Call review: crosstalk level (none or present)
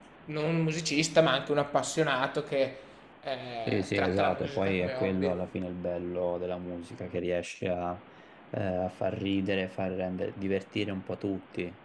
present